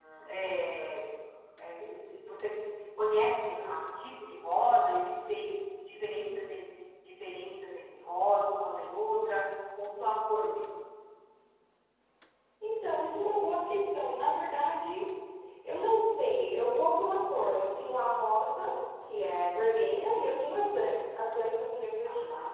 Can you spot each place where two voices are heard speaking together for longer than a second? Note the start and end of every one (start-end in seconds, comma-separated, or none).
none